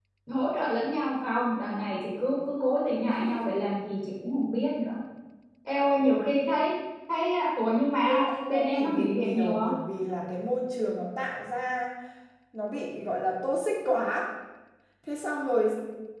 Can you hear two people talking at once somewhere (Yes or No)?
Yes